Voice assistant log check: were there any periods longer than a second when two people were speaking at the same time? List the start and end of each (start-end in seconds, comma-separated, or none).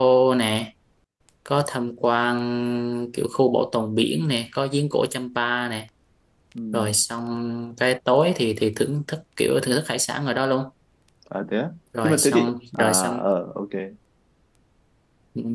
12.0-13.2